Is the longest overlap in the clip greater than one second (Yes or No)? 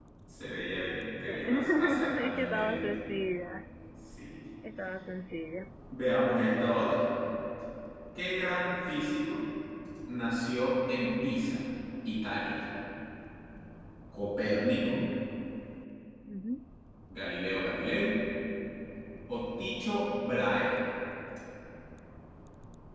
Yes